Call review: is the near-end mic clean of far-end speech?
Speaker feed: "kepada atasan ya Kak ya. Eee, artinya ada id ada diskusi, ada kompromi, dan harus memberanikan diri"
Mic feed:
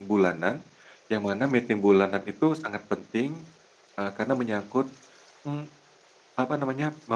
Yes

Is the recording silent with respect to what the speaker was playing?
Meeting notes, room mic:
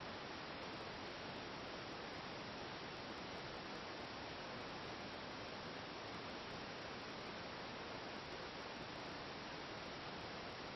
Yes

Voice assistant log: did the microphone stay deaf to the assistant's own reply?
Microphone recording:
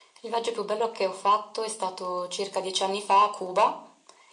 No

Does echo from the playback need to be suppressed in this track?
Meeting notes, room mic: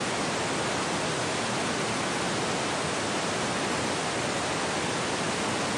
No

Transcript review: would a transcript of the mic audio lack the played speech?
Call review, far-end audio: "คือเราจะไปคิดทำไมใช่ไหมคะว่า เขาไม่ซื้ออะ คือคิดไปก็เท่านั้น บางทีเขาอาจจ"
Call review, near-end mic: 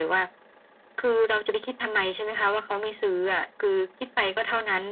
No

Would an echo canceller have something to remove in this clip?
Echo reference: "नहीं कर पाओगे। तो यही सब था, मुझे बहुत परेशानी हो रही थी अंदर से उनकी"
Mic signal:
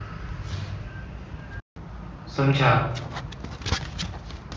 No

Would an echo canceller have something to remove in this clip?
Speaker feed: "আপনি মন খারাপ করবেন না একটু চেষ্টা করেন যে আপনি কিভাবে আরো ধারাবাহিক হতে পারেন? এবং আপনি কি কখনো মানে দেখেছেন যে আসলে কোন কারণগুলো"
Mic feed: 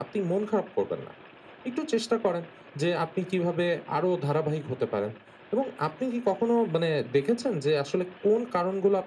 Yes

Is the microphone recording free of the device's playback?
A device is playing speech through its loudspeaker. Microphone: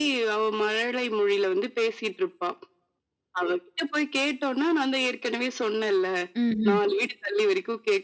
No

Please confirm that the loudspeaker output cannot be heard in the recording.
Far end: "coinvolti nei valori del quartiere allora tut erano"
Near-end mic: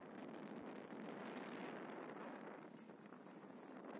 Yes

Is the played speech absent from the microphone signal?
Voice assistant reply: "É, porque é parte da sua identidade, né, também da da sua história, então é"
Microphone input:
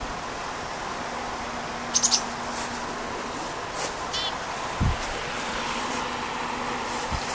Yes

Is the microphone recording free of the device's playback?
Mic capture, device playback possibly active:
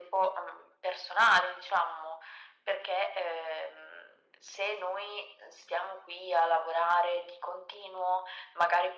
No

